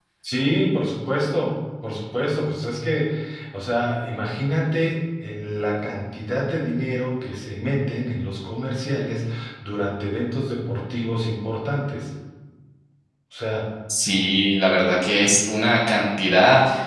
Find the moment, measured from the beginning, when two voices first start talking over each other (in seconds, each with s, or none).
none